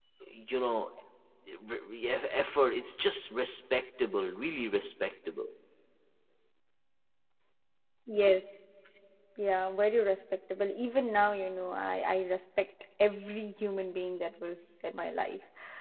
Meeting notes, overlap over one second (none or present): none